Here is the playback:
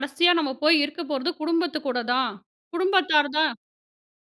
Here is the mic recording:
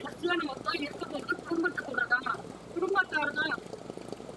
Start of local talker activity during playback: none

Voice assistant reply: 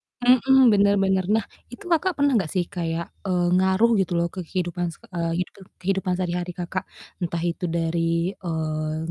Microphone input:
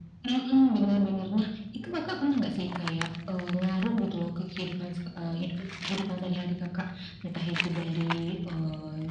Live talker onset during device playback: none

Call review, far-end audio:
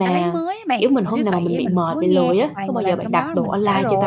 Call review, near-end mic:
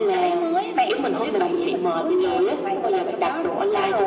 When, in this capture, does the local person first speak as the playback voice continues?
none

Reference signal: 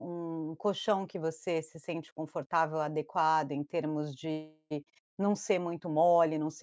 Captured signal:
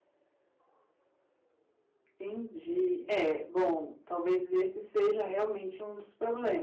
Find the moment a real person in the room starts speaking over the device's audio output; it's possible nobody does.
2.1 s

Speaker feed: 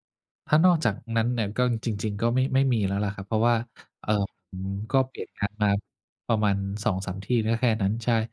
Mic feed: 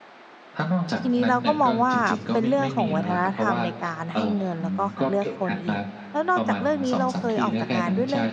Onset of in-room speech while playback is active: 1.0 s

